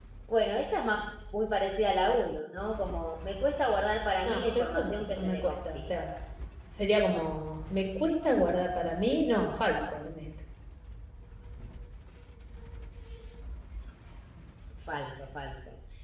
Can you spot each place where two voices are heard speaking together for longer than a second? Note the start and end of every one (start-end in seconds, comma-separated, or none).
4.2-6.0